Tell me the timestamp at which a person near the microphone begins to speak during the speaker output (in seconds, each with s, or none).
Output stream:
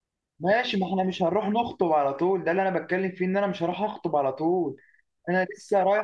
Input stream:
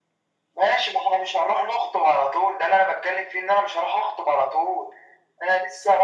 none